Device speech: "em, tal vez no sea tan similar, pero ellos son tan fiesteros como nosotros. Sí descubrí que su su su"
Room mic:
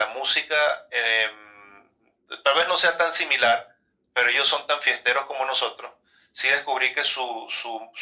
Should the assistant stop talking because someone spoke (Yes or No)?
No